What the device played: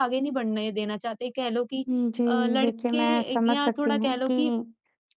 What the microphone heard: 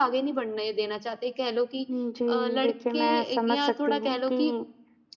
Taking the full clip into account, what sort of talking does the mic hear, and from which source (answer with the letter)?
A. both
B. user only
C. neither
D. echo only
D